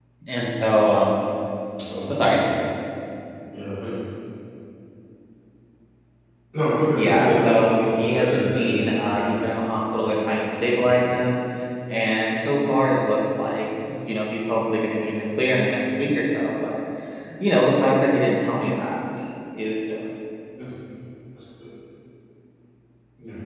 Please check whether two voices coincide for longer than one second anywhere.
Yes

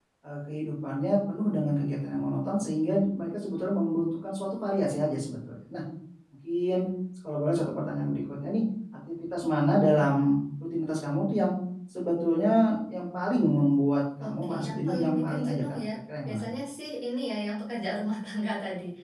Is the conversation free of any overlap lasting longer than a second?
No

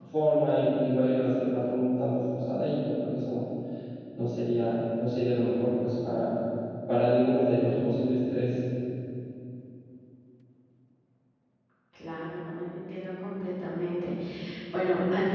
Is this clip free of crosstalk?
Yes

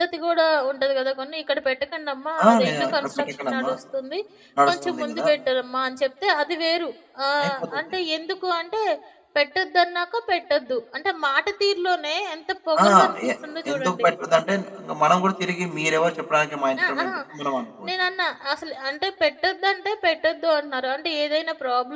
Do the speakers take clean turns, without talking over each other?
No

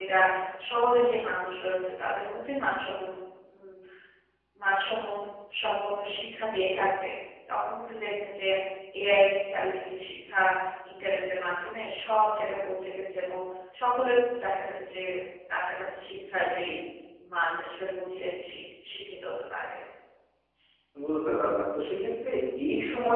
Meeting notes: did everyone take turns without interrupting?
Yes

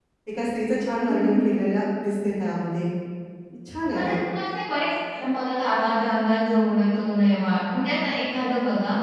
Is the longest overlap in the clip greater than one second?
No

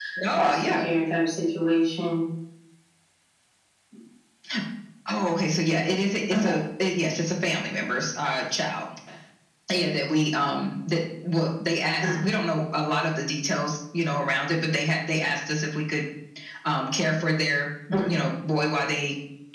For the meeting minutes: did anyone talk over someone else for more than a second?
No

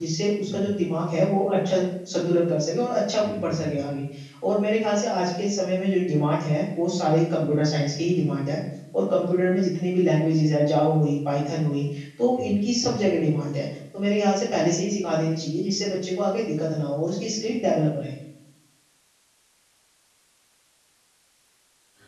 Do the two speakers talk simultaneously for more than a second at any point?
No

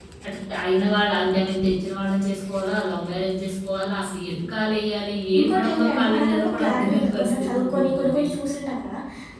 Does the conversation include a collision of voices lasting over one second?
Yes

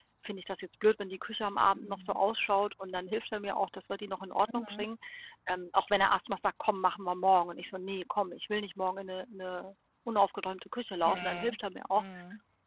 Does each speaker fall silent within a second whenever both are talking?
Yes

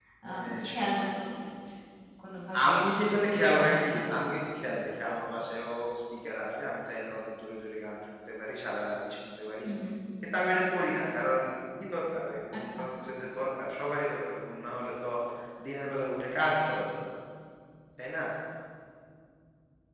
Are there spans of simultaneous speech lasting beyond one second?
Yes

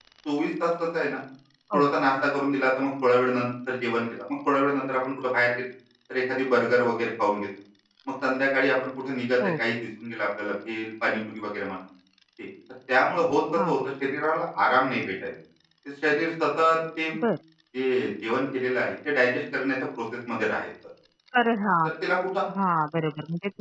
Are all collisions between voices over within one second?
Yes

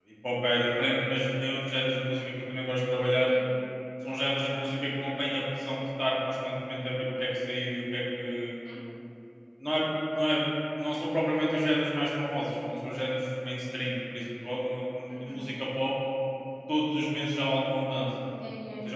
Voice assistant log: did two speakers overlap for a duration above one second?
No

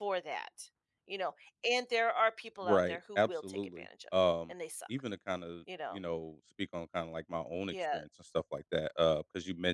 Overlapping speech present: Yes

